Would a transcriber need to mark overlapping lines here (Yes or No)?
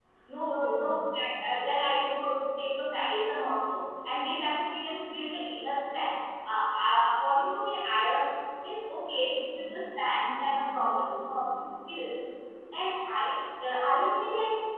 Yes